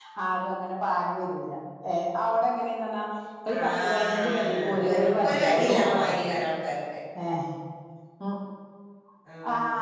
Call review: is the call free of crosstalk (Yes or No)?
No